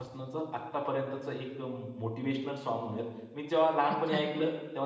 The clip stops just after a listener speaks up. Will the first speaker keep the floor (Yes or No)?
Yes